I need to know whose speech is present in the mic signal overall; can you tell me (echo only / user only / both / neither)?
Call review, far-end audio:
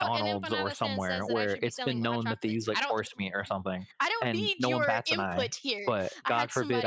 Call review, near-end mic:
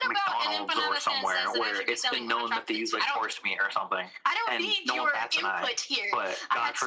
echo only